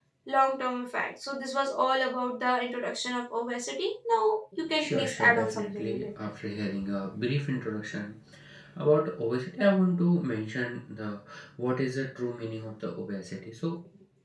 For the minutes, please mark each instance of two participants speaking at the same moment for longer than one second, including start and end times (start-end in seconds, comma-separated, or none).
4.7-6.1